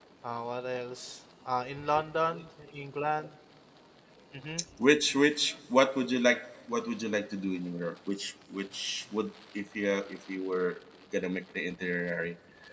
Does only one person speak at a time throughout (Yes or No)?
Yes